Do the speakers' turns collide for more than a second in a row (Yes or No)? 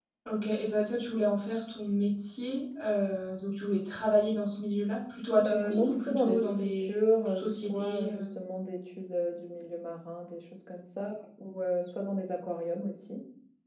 Yes